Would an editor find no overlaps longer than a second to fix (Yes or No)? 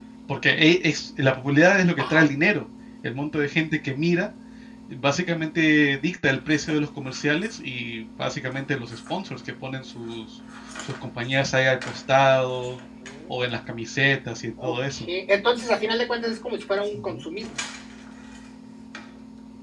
Yes